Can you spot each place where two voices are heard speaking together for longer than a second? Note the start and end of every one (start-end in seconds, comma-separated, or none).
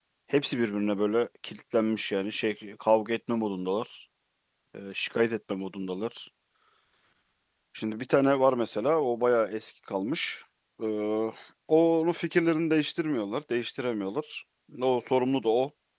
none